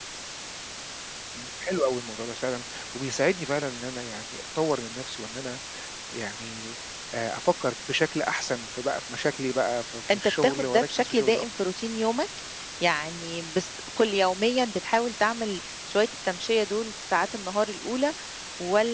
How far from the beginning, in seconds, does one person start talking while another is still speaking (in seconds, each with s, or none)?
10.1 s